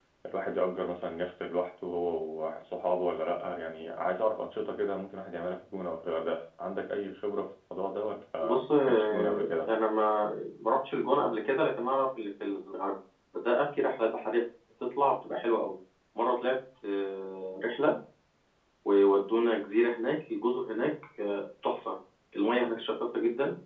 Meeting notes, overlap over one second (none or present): present